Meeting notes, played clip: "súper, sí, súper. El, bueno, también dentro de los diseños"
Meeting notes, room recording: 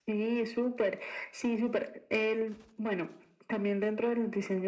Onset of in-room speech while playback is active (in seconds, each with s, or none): none